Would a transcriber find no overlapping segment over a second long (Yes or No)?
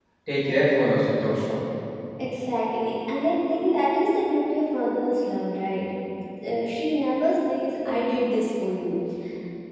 Yes